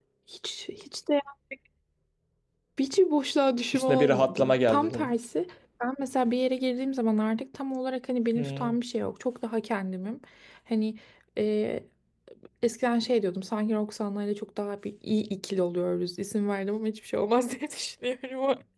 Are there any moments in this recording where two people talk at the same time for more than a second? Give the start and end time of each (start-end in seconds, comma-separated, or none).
3.7-5.1